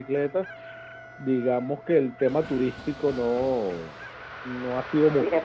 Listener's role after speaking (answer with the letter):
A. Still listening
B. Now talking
B